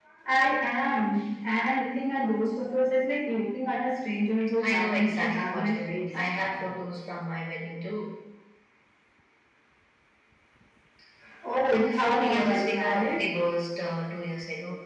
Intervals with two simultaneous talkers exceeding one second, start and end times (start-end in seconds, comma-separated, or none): 4.6-6.1, 11.7-13.2